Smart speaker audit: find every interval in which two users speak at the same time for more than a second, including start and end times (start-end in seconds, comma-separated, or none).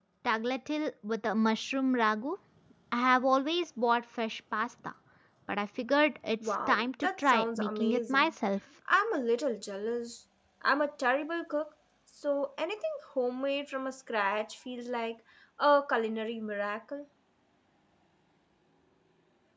6.7-8.3